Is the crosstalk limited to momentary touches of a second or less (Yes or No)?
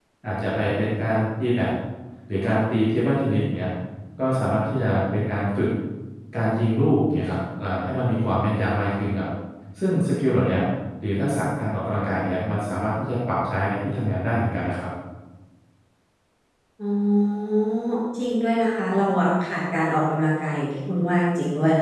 Yes